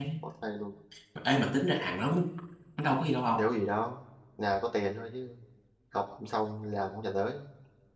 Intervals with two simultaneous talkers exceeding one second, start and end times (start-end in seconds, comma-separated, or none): none